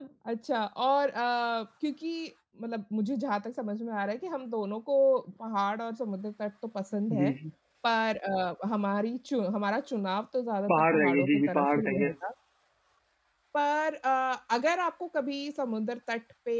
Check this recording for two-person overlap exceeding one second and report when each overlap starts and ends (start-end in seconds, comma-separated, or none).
10.7-12.1